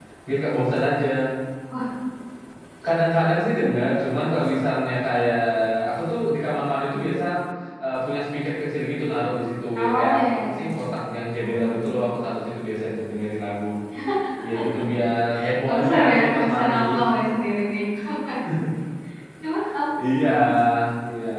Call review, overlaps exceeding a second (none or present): present